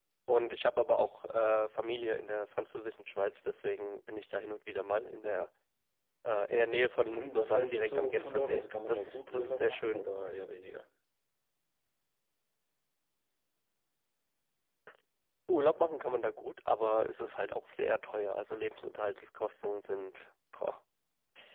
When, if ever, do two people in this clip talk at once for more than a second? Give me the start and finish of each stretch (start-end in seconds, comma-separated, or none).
7.2-10.0